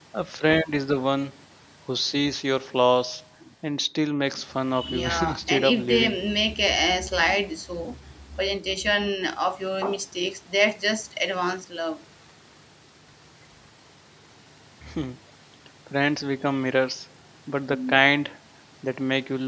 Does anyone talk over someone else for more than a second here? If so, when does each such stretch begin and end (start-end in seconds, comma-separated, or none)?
4.8-6.2